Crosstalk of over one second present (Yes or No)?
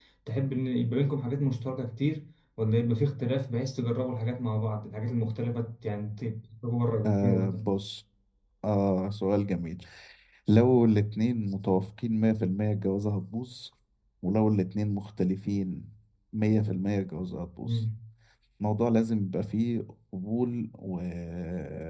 No